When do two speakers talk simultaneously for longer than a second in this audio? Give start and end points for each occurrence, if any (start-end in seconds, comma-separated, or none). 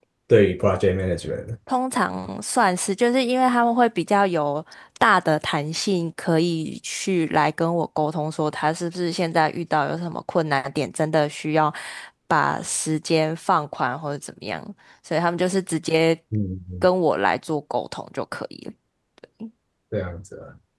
none